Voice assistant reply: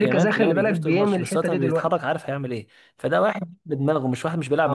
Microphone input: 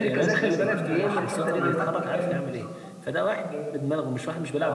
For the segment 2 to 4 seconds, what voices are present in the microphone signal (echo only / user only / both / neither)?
both